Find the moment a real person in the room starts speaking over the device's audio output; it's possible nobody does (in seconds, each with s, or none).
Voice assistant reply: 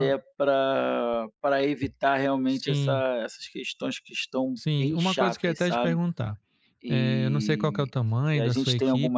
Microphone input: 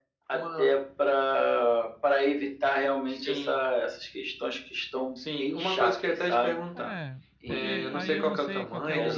6.7 s